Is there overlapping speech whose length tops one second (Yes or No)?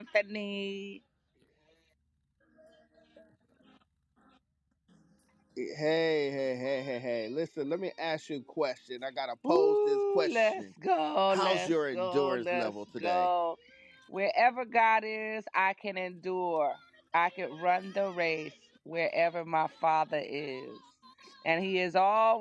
Yes